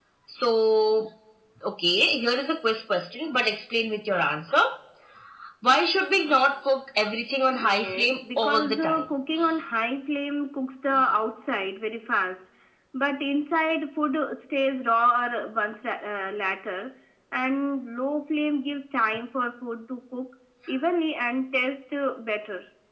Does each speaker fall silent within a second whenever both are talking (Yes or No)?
No